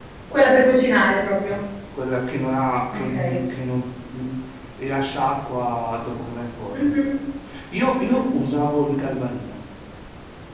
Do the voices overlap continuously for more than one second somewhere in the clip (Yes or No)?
No